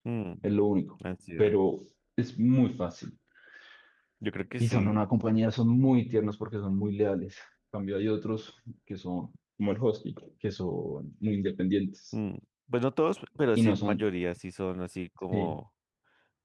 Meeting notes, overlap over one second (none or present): none